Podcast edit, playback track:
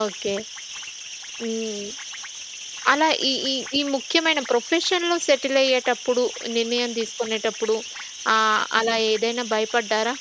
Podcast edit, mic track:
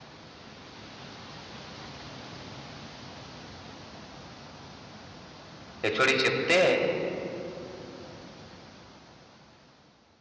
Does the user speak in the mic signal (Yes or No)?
Yes